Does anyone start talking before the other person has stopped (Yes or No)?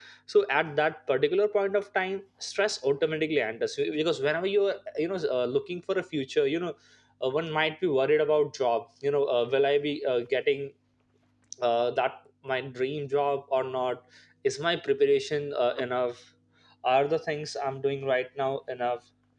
No